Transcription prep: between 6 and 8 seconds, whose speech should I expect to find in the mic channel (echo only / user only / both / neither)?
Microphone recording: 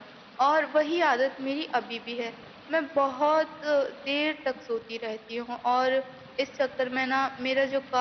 echo only